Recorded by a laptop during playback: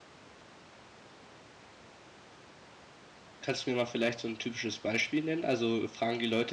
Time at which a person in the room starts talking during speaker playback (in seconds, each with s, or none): 3.4 s